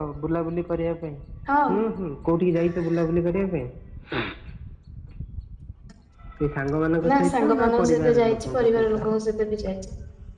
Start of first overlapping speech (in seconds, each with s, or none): 7.1 s